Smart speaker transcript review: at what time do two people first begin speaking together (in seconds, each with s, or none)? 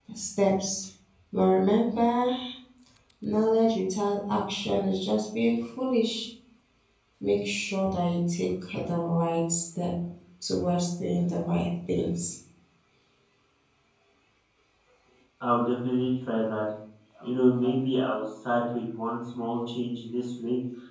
none